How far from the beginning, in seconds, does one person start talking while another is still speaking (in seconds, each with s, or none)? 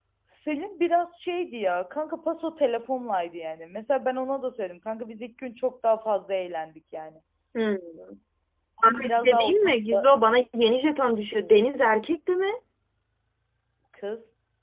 8.8 s